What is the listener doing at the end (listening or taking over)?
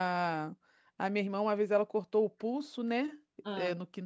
listening